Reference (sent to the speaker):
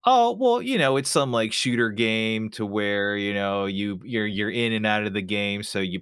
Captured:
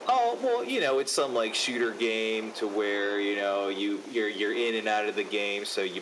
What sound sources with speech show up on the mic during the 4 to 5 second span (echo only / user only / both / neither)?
echo only